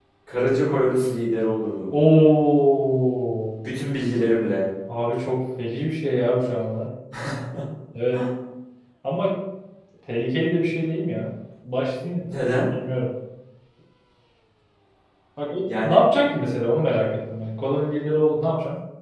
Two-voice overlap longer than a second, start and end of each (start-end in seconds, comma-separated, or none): none